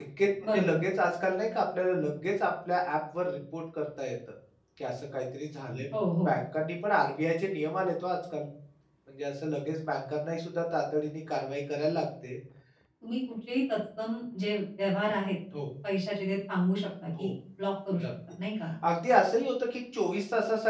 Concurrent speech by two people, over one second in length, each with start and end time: none

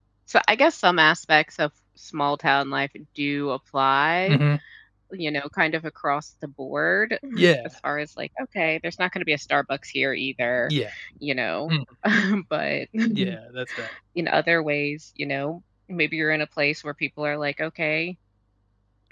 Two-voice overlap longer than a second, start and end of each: none

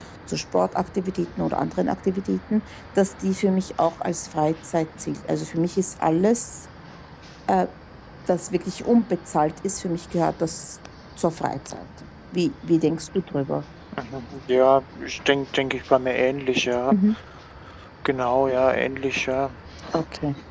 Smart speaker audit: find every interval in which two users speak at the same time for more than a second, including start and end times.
none

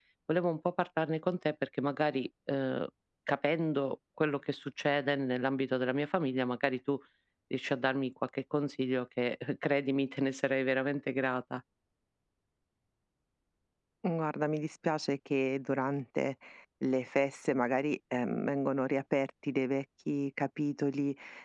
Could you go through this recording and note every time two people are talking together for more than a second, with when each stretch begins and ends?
none

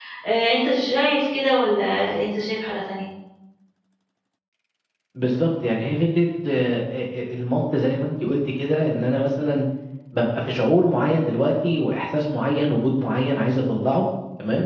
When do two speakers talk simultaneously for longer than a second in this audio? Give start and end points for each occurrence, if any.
none

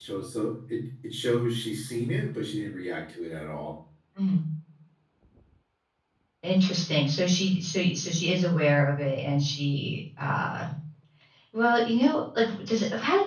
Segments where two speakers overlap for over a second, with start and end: none

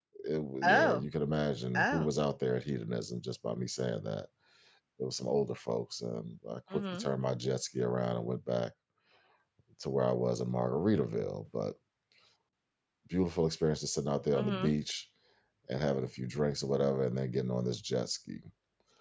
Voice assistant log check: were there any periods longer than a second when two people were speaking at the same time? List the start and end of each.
none

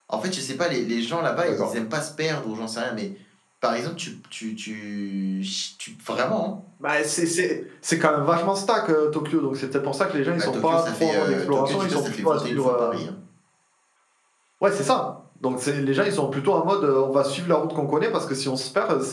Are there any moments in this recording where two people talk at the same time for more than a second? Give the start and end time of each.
10.4-13.0

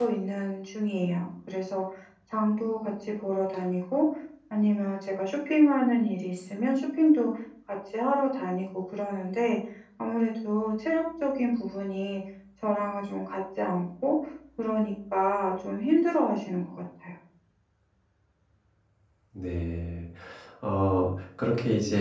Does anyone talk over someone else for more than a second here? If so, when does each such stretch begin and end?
none

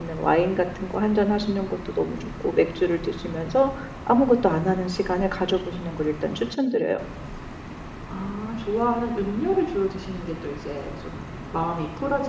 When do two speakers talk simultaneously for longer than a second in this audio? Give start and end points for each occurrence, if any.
none

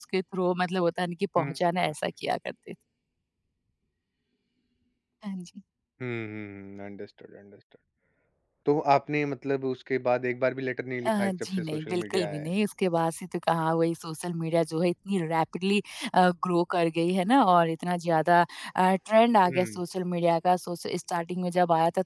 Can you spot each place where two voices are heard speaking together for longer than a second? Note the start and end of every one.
11.1-12.5

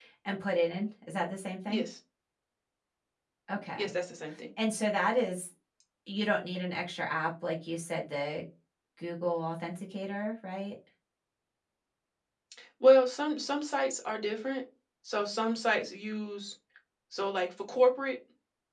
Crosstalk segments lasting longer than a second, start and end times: none

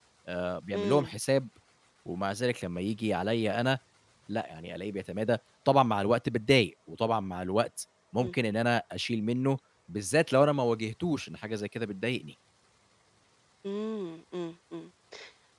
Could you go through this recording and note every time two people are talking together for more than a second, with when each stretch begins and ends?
none

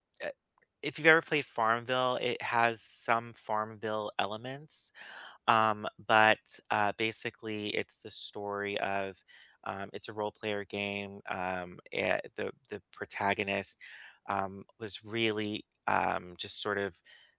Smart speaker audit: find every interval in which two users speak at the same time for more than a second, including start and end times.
none

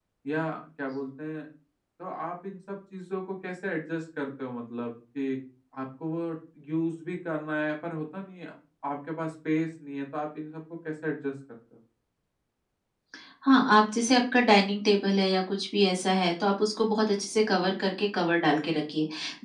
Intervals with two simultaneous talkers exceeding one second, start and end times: none

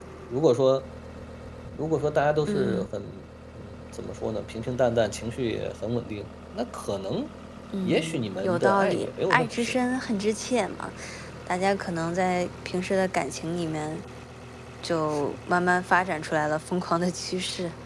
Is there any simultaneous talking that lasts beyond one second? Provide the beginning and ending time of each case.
7.8-9.8

